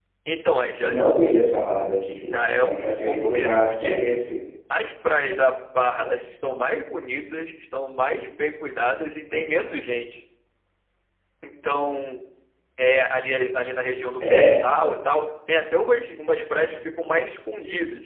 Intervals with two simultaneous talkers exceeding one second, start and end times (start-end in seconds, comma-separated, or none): 2.3-4.0